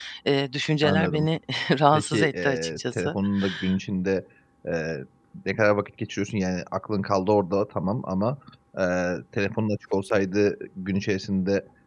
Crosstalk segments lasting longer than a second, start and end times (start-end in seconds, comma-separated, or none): 1.9-3.1